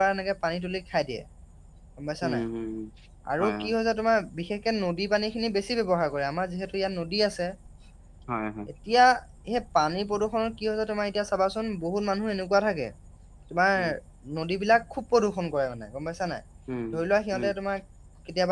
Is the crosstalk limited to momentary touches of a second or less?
Yes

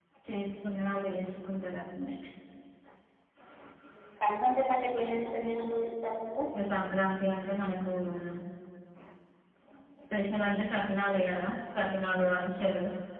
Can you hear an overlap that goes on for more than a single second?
No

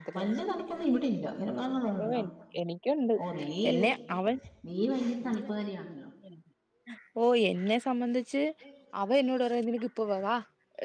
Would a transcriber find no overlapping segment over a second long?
Yes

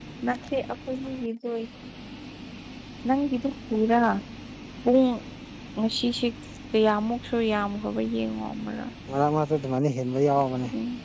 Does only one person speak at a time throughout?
Yes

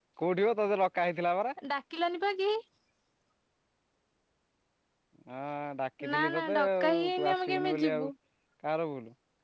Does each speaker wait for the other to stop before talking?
No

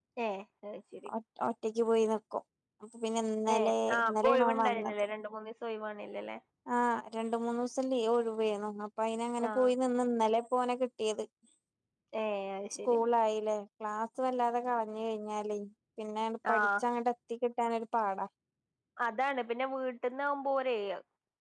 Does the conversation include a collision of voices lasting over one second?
Yes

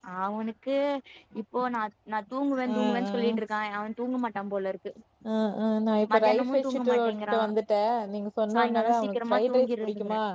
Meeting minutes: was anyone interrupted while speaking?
Yes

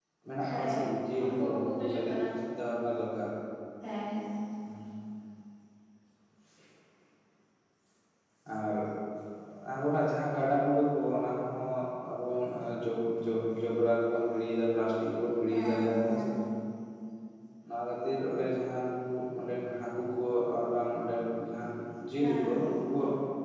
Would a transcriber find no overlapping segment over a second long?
No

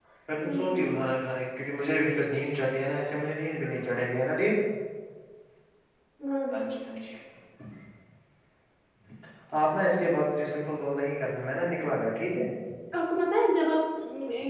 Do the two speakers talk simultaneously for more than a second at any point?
No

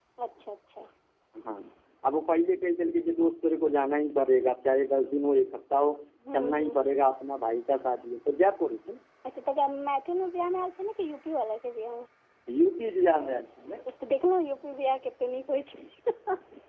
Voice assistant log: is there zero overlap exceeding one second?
Yes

